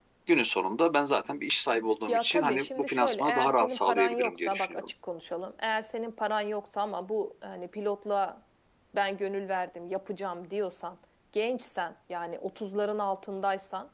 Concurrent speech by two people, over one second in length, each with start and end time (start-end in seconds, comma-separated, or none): 2.1-4.9